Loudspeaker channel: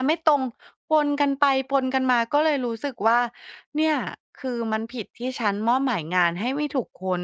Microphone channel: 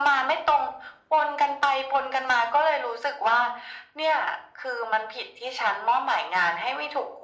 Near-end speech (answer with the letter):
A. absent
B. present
A